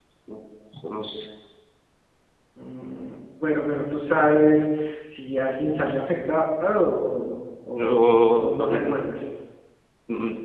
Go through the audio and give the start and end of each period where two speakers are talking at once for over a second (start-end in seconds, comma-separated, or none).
7.8-9.1